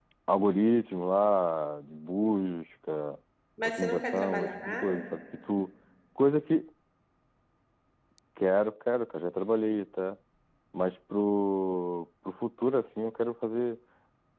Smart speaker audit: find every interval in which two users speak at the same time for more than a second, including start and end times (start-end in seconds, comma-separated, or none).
3.6-5.0